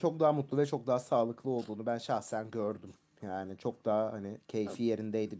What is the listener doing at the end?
listening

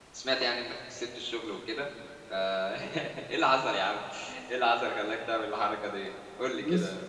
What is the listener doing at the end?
taking over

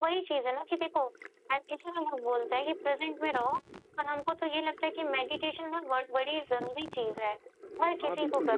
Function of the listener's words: taking over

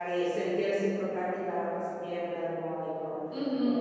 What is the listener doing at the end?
taking over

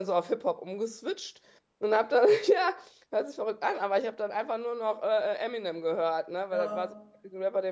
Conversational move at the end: listening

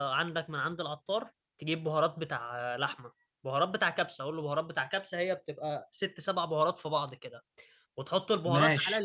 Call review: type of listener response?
listening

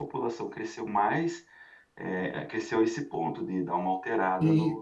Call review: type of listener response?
taking over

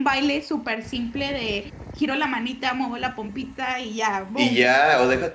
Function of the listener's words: taking over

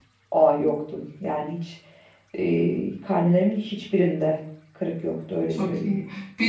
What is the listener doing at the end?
taking over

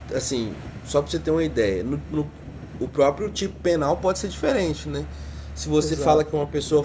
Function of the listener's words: listening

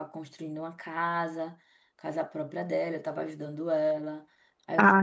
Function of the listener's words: taking over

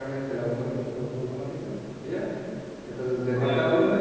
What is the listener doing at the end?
taking over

